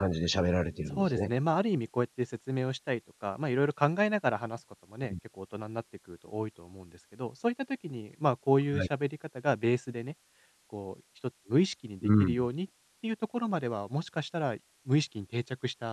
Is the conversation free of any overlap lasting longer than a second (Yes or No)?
Yes